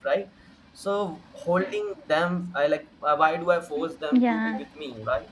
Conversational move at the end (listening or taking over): listening